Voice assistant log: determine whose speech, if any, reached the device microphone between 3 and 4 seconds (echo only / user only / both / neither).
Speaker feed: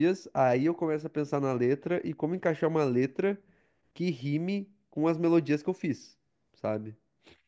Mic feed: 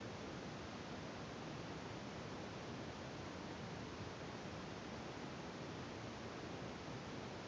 neither